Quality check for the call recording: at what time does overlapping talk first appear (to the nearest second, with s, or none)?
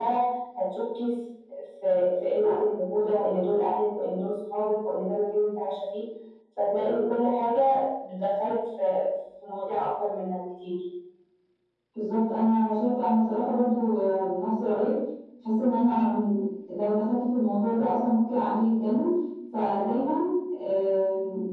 none